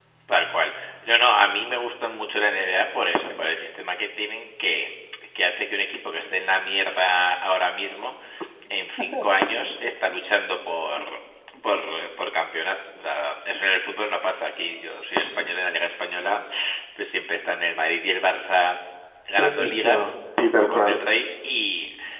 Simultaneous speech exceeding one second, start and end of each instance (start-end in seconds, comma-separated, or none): 19.4-21.0